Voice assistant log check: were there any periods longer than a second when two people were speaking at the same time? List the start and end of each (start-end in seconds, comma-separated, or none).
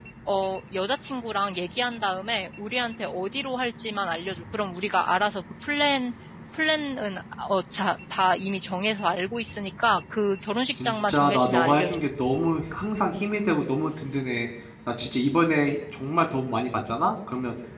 10.7-12.0